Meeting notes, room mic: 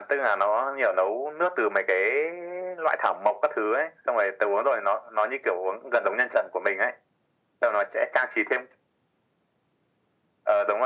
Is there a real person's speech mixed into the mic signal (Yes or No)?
No